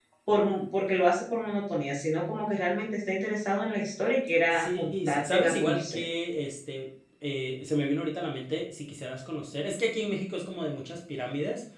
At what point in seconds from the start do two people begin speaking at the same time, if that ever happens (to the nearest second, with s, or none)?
5 s